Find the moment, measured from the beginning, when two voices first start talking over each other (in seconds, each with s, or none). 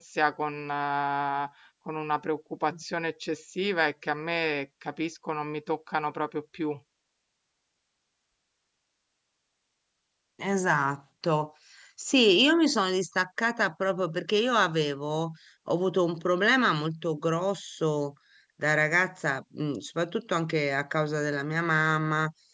none